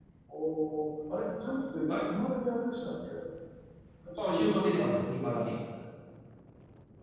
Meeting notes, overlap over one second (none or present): present